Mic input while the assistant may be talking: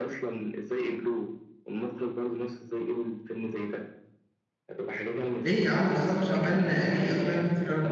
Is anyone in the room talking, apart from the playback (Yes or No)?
Yes